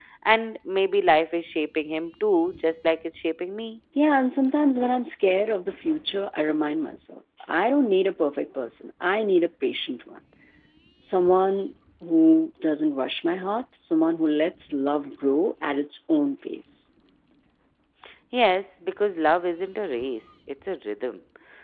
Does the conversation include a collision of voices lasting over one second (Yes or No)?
No